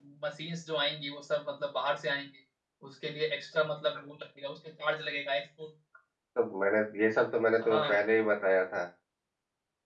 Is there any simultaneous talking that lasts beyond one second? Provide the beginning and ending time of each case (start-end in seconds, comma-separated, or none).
none